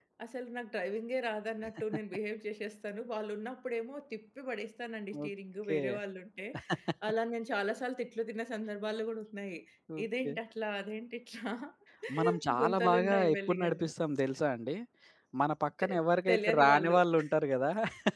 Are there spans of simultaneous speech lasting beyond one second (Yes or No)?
Yes